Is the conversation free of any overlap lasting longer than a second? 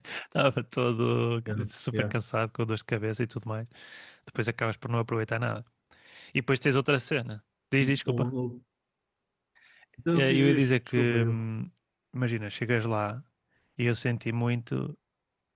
No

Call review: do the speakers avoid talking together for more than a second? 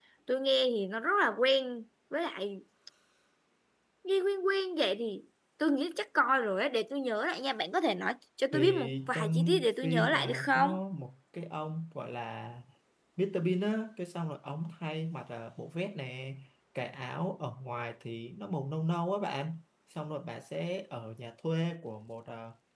No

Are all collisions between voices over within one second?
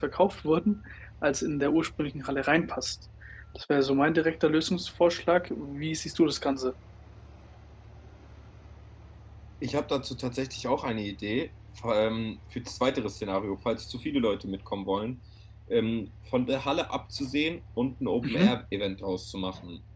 Yes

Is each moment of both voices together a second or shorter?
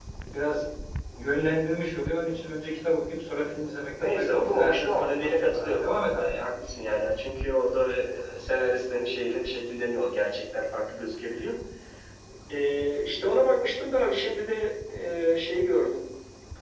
No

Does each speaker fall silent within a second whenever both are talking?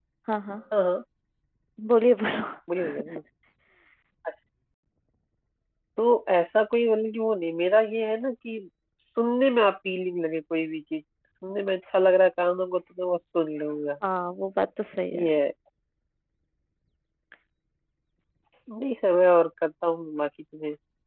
Yes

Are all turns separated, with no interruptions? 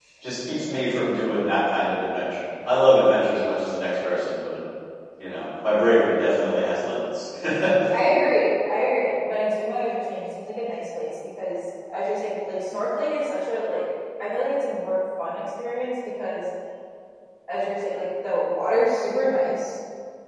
Yes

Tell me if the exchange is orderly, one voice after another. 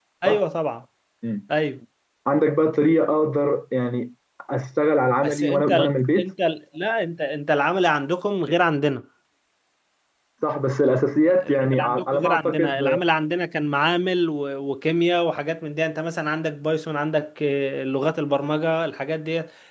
No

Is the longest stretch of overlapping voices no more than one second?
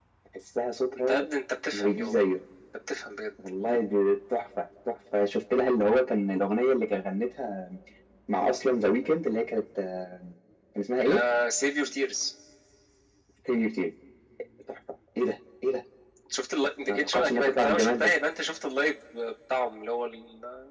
No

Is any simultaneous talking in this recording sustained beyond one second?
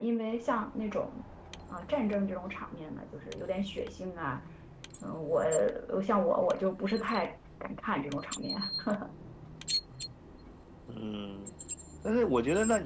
No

